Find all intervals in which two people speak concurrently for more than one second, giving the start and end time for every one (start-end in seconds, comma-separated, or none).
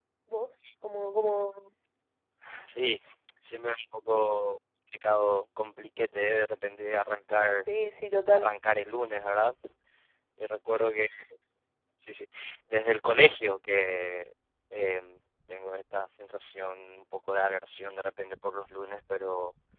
none